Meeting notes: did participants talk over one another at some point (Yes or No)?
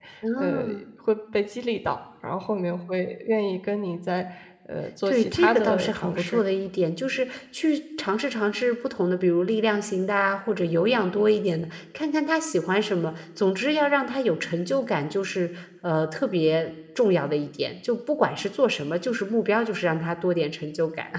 Yes